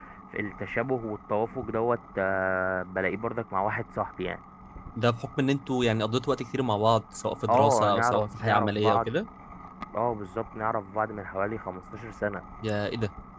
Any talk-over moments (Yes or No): Yes